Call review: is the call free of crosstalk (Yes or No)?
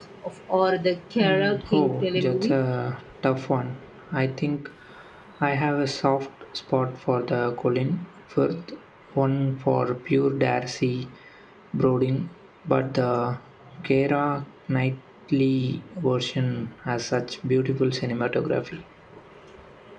No